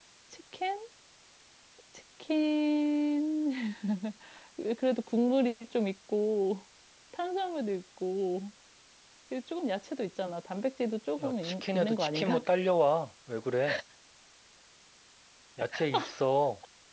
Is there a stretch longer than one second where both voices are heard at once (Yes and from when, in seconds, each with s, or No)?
Yes, from 11.2 s